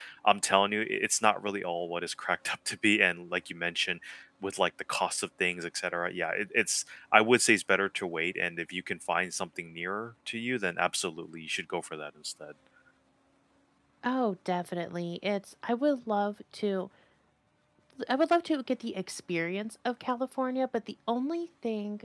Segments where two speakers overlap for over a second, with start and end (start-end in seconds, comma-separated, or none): none